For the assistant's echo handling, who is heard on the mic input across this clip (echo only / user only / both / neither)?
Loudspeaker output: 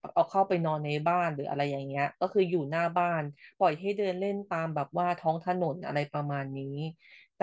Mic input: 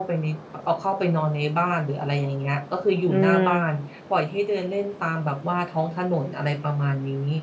both